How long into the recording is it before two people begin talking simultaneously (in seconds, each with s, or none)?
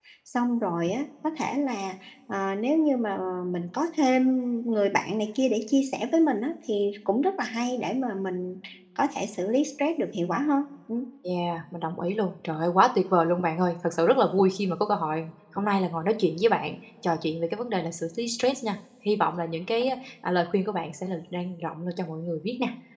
none